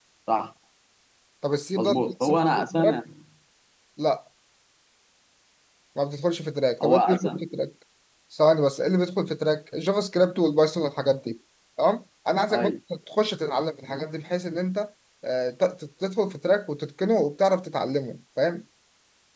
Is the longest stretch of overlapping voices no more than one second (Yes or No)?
No